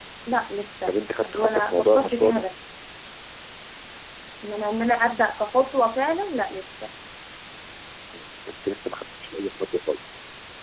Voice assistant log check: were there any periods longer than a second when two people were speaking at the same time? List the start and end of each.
0.8-2.4

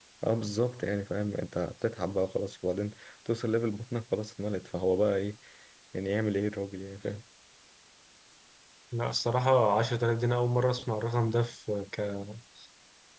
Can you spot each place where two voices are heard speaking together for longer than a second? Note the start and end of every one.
none

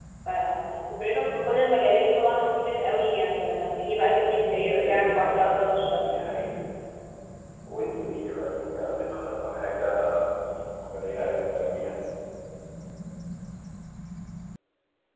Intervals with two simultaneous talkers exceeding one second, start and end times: 4.7-6.1

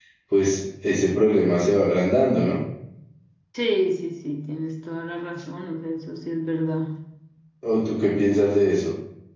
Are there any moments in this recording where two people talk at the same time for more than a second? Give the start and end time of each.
none

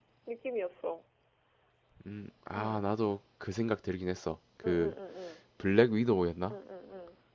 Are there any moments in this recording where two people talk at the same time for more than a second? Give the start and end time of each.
none

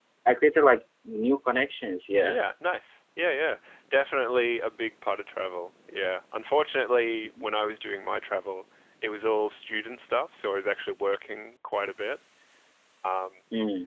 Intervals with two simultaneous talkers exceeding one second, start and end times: none

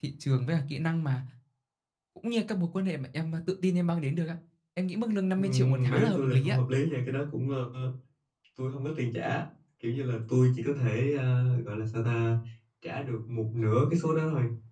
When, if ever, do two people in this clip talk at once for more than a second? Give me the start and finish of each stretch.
5.4-6.6

